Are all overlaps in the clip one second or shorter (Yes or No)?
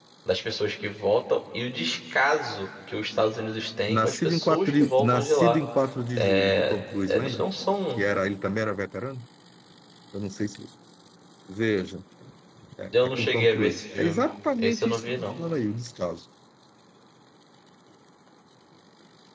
No